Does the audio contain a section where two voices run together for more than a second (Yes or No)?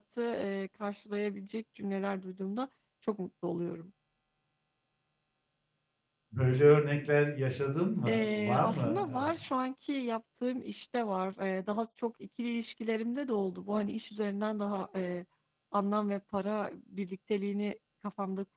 Yes